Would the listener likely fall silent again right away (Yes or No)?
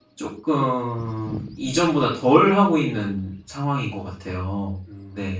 No